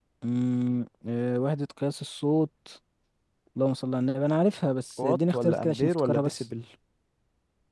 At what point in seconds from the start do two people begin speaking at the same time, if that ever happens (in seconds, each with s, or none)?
5.0 s